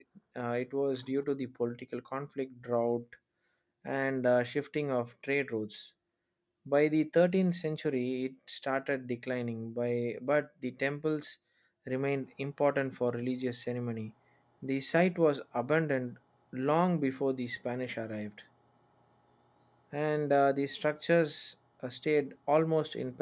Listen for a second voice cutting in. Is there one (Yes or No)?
No